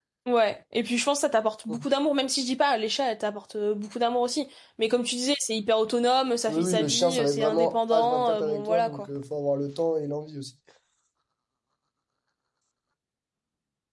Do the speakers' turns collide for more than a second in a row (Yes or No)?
Yes